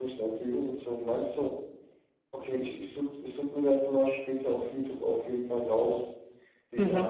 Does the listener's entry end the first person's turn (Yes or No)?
Yes